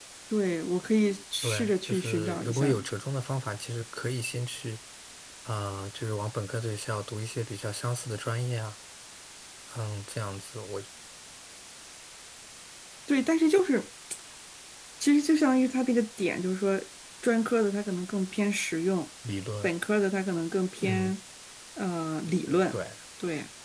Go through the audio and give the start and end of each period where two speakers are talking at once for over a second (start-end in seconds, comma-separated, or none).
1.4-2.8